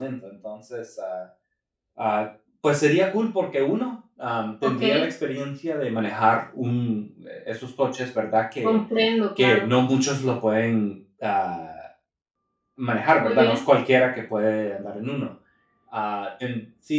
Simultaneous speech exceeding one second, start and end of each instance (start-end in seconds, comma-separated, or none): none